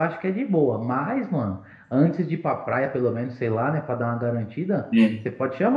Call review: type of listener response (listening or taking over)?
listening